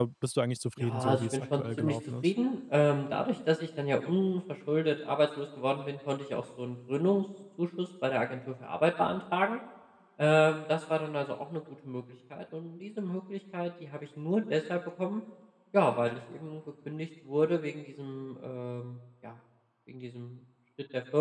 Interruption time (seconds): 0.8 s

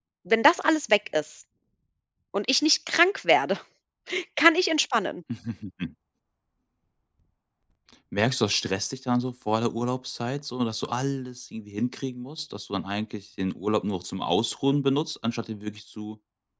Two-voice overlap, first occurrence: none

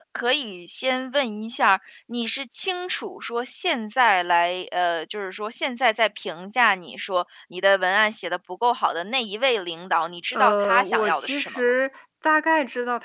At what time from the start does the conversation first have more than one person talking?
10.3 s

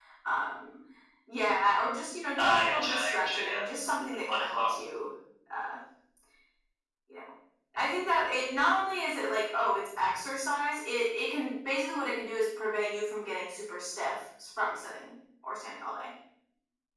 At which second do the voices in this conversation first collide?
2.3 s

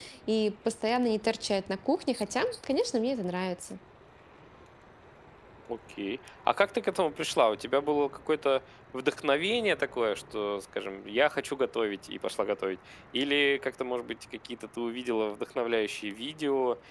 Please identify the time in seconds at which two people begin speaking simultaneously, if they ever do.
none

